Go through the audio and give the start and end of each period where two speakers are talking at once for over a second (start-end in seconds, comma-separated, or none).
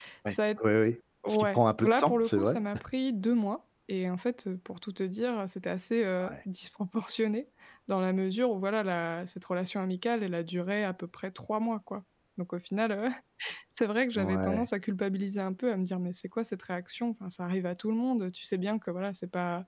1.3-2.6